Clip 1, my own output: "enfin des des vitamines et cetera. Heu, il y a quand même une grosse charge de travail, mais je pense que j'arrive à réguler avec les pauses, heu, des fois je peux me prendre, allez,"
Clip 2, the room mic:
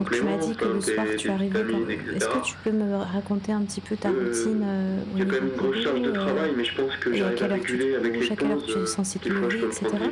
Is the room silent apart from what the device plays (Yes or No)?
No